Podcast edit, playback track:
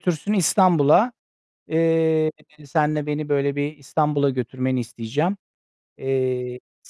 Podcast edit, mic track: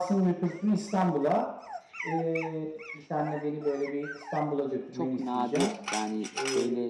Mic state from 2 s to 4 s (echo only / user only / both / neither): echo only